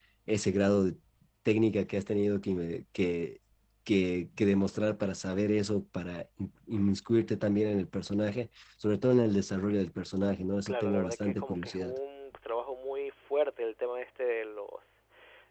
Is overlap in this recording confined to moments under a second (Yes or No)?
No